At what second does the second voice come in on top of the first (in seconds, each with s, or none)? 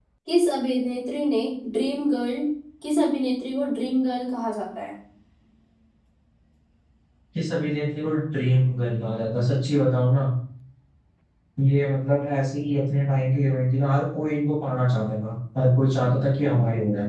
none